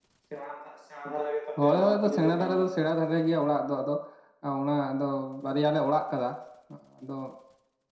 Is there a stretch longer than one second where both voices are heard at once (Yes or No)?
Yes